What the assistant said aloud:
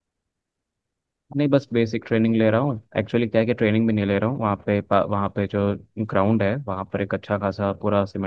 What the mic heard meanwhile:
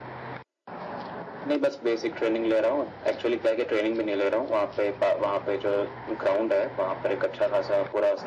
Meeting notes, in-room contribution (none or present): none